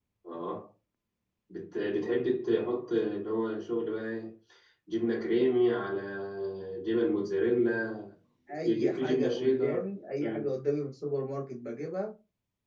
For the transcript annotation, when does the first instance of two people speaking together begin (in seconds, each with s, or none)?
8.5 s